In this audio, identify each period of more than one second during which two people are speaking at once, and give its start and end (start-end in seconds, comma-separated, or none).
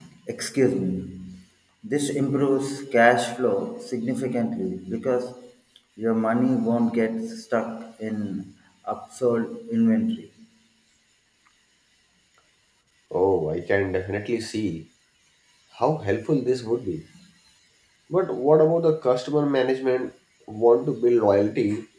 none